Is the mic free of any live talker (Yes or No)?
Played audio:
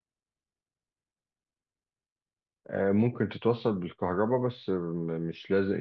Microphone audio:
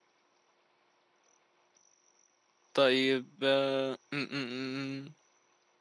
No